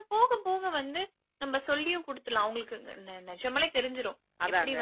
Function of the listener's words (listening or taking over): listening